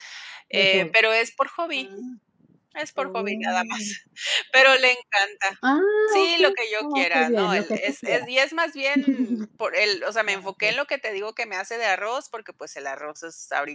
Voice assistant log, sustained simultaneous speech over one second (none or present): present